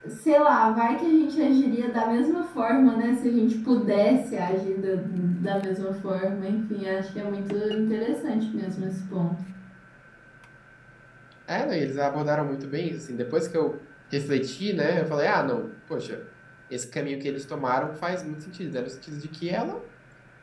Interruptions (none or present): none